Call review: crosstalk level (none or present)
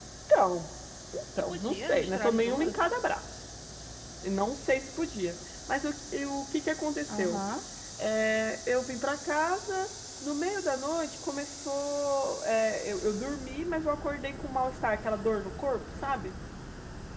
present